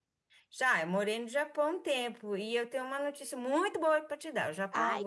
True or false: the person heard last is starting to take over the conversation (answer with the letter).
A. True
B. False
B